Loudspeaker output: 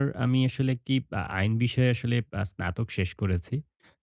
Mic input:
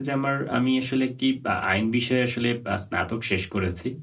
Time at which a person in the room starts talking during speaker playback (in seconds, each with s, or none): none